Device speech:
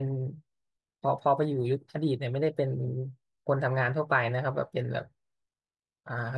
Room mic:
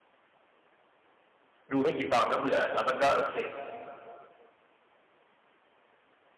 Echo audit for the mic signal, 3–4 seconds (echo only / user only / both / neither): user only